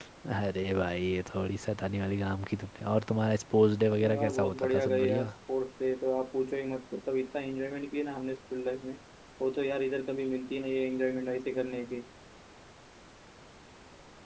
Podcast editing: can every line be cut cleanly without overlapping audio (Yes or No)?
No